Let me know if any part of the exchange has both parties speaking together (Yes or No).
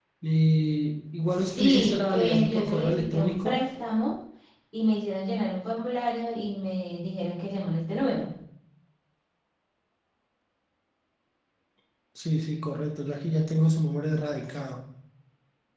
Yes